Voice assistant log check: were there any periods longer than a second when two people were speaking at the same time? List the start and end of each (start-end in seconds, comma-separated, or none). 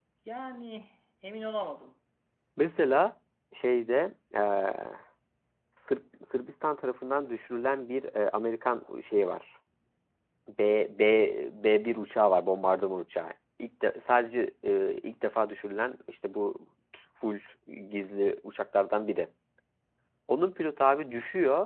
none